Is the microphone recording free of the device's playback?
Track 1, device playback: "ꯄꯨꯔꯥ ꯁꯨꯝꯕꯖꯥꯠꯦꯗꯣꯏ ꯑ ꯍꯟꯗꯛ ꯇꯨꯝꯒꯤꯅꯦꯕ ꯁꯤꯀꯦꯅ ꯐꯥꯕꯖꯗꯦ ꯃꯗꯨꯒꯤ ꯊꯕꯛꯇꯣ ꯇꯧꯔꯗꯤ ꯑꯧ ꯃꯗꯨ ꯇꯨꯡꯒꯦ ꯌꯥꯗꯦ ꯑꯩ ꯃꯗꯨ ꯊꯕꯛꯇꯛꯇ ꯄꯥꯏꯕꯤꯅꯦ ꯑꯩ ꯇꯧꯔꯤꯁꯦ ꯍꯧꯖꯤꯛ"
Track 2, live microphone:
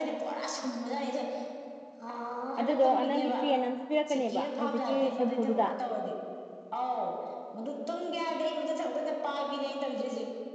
No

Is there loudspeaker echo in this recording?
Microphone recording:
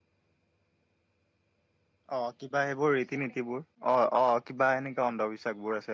No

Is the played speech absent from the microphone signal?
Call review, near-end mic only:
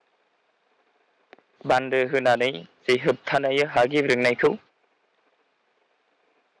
Yes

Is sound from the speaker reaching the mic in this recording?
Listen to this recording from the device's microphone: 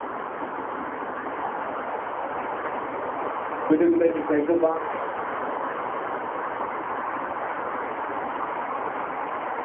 No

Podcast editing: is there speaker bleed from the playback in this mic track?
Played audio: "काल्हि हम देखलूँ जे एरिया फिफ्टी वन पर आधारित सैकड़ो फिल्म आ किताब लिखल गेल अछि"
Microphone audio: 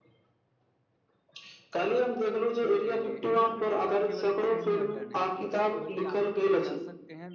Yes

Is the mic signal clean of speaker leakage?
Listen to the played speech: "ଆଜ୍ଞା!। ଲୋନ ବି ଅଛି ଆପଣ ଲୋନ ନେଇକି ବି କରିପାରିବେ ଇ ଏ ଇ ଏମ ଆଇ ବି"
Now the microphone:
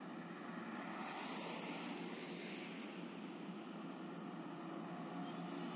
Yes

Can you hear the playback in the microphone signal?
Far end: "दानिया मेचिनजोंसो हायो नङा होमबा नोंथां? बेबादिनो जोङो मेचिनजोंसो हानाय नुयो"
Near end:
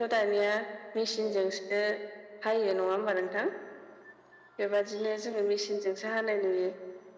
Yes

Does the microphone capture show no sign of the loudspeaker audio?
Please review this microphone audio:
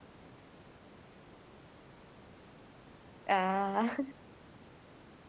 Yes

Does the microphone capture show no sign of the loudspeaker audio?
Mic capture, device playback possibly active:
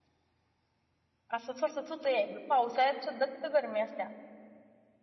Yes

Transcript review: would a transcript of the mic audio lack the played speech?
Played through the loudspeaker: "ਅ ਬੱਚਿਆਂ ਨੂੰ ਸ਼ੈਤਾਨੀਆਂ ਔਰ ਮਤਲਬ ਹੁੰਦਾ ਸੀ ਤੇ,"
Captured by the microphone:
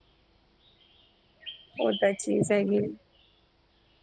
Yes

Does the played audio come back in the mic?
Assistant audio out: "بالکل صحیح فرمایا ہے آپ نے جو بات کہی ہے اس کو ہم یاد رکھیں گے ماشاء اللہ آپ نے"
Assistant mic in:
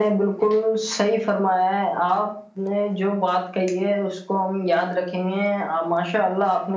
Yes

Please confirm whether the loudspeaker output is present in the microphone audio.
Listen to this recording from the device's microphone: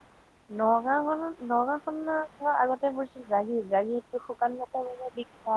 No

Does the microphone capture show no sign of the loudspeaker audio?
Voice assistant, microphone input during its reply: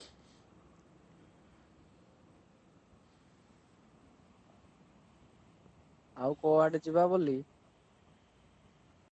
Yes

